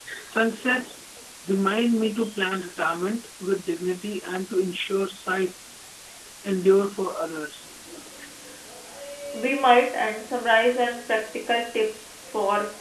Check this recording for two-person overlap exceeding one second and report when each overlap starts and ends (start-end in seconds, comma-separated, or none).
none